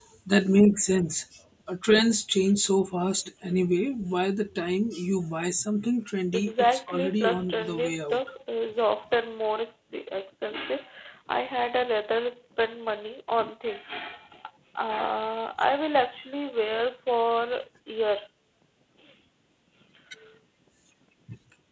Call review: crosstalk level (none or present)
present